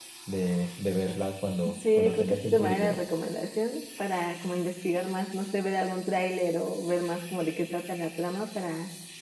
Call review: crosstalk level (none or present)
present